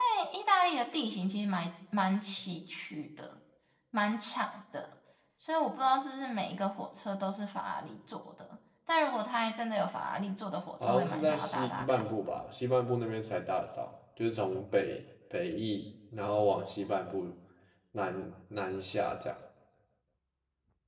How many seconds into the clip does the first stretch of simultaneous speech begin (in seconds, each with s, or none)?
10.8 s